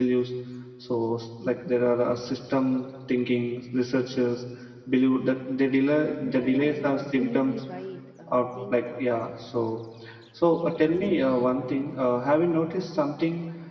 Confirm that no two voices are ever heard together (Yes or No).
No